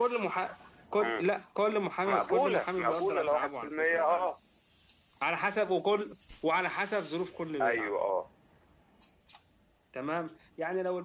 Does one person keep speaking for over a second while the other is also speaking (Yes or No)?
Yes